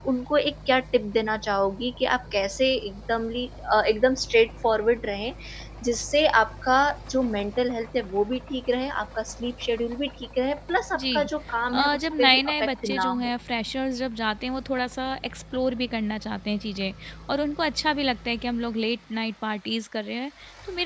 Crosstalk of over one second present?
Yes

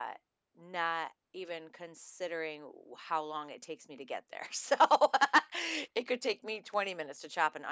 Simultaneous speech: No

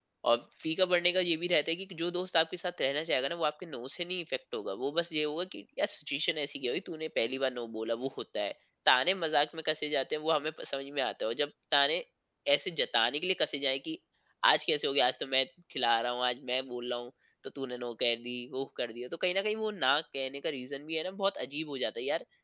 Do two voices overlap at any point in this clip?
No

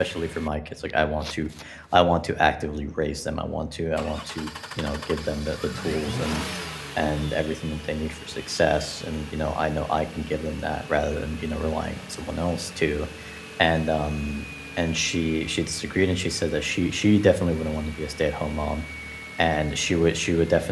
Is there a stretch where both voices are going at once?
No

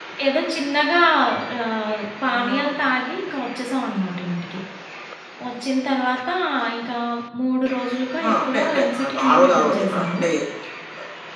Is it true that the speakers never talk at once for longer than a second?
No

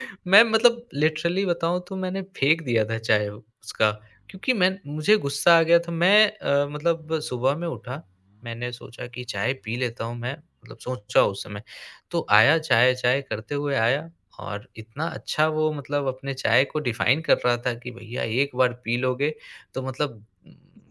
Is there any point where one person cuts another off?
No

